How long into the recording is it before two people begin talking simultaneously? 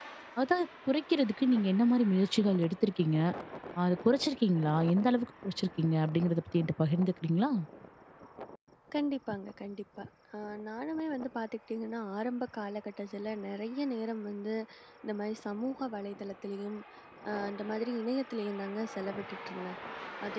none

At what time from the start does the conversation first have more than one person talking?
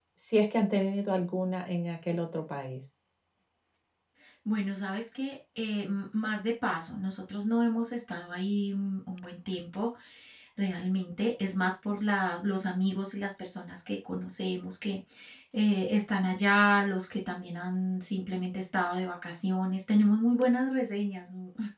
none

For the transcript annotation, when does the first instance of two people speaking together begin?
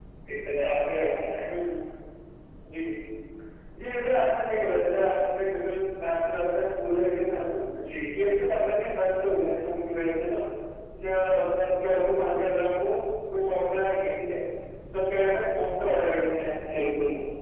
none

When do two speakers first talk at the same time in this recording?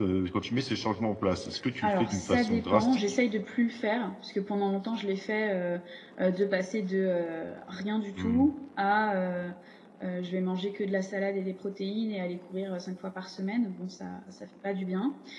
1.8 s

